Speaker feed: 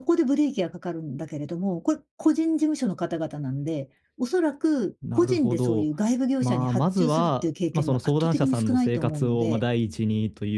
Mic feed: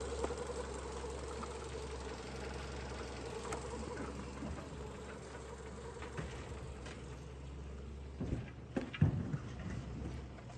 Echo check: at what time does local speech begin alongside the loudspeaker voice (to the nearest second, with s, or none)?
none